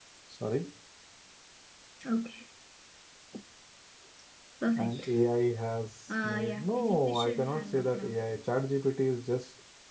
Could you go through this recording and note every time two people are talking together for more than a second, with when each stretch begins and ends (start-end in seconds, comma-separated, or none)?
6.2-8.2